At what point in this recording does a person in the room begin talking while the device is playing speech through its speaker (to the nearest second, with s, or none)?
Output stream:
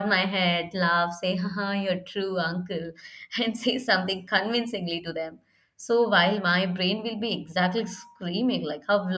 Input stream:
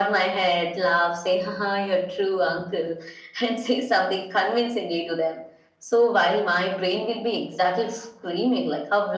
none